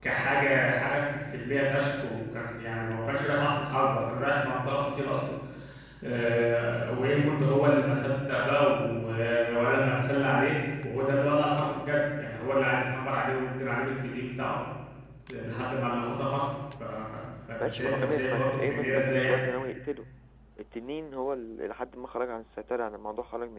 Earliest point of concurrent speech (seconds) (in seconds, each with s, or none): 17.6 s